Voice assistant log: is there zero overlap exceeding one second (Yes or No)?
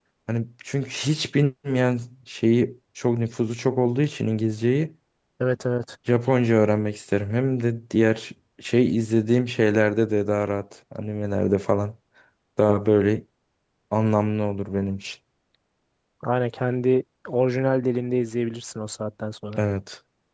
Yes